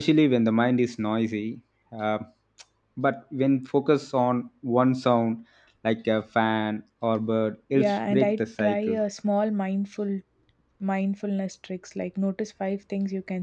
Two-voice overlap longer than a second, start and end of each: 7.7-9.0

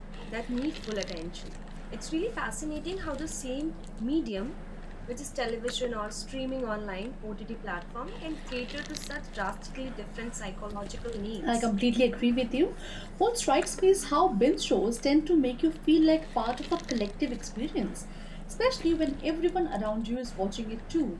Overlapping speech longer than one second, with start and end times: none

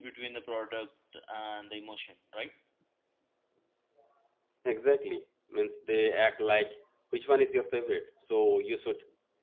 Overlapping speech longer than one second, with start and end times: none

